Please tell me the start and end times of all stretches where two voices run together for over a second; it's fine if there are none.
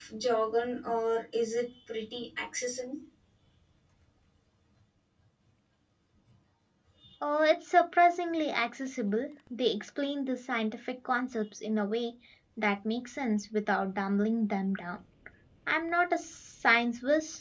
none

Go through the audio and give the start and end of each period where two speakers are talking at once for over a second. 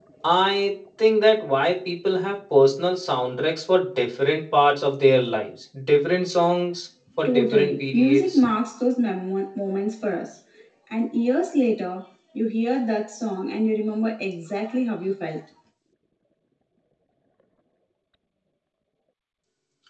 7.2-8.4

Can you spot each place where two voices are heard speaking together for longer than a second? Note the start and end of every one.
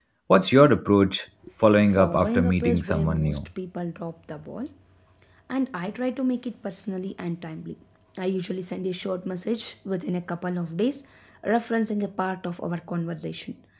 1.8-3.4

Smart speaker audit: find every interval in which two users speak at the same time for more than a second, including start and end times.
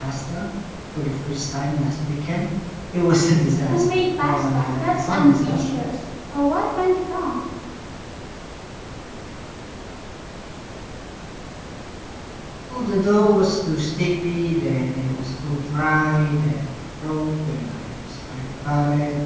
3.7-5.6

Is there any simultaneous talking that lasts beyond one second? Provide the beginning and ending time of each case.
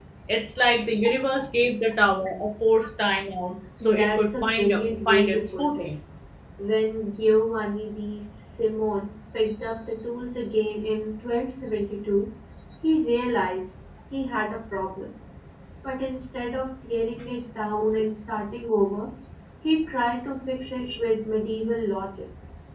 3.8-5.9

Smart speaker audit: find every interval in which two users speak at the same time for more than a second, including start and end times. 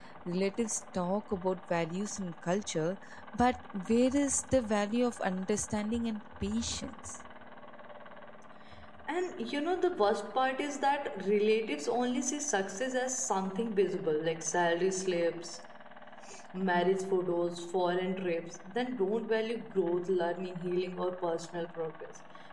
none

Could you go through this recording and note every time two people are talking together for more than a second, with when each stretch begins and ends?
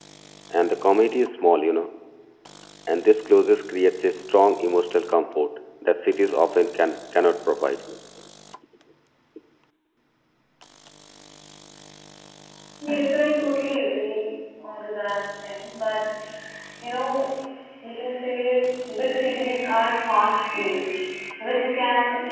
none

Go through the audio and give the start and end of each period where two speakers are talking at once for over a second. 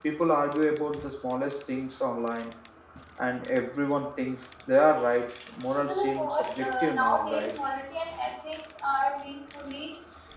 5.8-7.5

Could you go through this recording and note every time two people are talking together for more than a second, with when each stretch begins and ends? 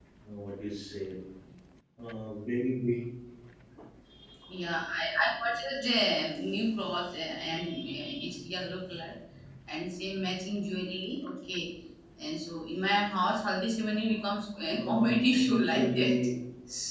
14.7-16.1

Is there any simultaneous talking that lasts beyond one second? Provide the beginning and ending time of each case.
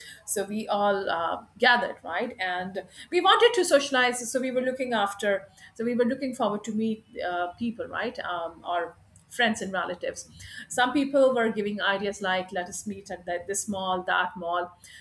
none

